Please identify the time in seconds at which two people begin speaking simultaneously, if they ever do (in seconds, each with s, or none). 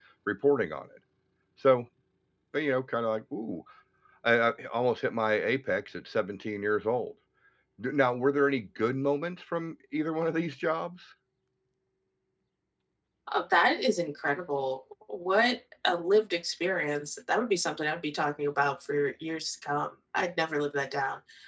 none